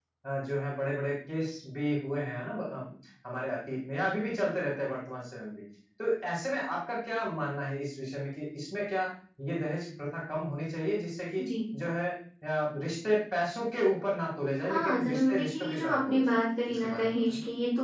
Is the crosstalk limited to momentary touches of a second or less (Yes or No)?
No